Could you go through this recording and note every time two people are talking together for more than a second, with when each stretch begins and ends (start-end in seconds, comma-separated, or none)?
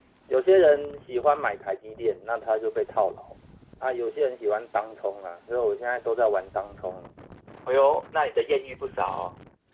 none